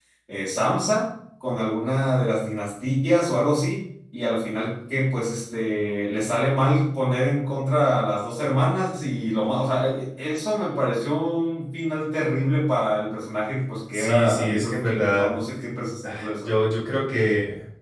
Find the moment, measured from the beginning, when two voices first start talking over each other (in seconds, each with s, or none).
13.9 s